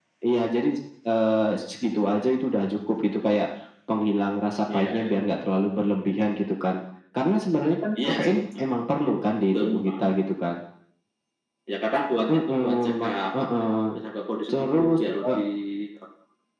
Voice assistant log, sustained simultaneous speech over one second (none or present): present